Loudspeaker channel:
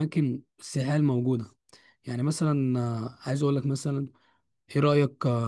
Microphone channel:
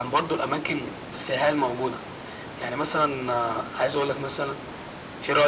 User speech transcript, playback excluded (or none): none